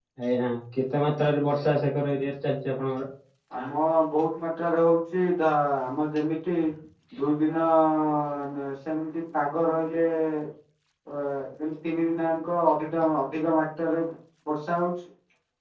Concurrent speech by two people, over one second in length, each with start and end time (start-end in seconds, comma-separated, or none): none